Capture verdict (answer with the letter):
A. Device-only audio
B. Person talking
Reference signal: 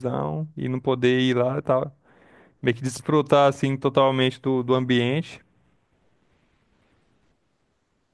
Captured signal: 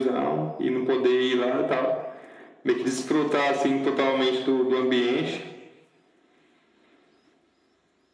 A